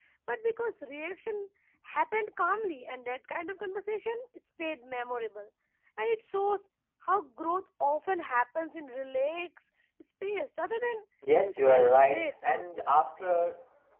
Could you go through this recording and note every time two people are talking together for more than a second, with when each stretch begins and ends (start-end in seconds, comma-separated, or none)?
11.4-12.9